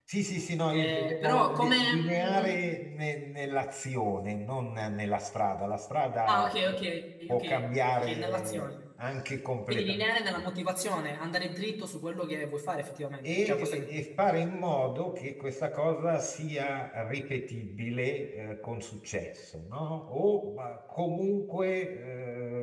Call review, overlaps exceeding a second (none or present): present